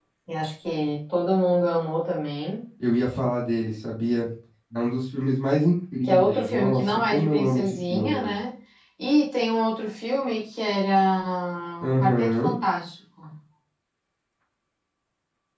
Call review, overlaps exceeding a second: present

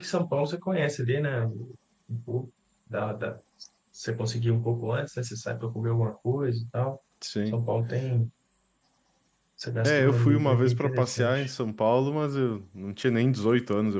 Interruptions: present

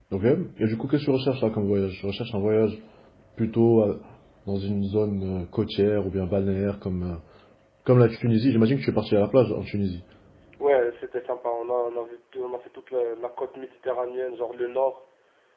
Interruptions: none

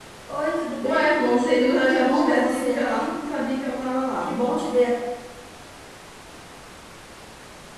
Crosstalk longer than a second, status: present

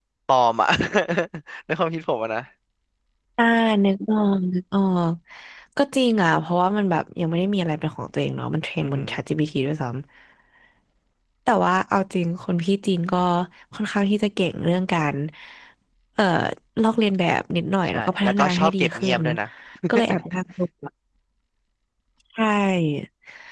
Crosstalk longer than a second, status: present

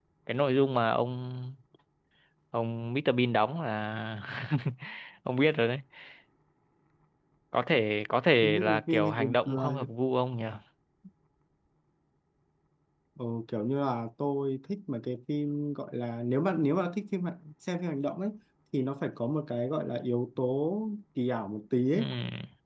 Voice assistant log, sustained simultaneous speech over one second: present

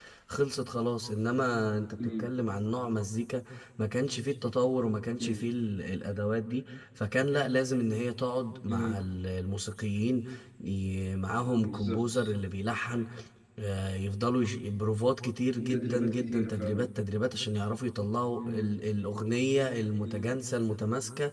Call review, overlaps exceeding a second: present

